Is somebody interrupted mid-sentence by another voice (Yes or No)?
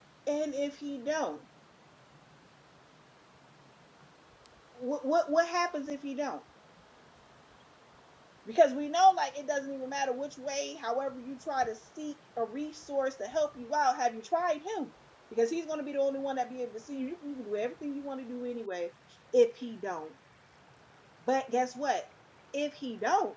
No